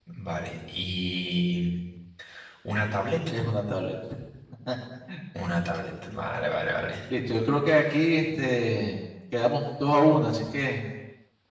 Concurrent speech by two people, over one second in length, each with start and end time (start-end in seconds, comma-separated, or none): none